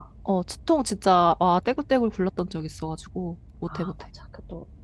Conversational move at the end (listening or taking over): taking over